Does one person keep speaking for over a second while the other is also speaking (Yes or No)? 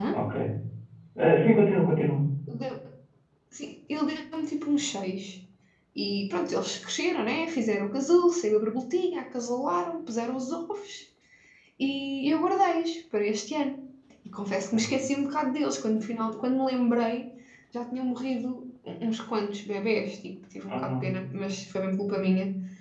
No